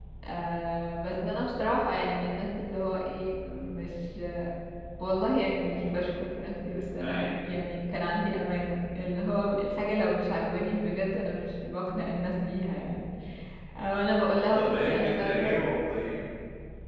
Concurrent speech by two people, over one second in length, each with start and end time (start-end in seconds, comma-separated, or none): 14.0-15.5